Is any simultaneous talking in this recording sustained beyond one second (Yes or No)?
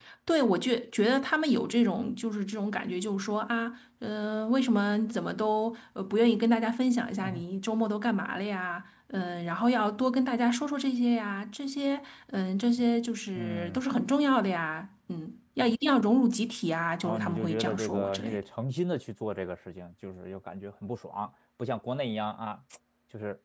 Yes